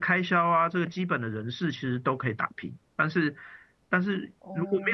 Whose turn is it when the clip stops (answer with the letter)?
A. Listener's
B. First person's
B